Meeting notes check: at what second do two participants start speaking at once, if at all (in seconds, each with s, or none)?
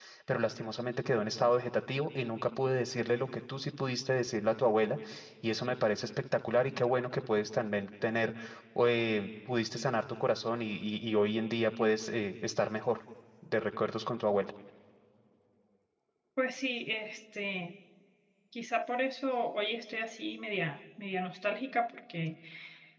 none